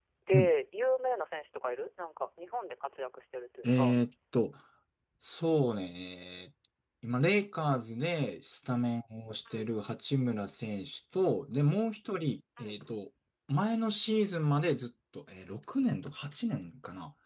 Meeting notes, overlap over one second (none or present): none